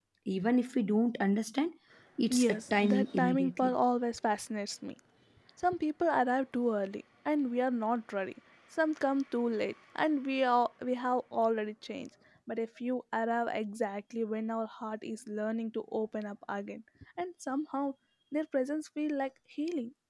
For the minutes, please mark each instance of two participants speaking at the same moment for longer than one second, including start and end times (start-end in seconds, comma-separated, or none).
2.3-3.8